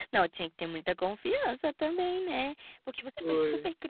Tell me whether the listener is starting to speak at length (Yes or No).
No